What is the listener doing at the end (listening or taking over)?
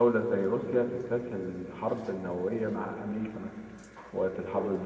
listening